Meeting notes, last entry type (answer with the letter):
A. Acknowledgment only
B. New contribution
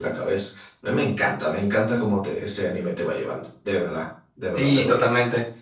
B